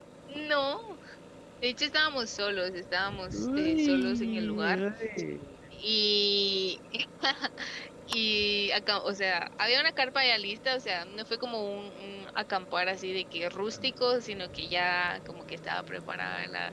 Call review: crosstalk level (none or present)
present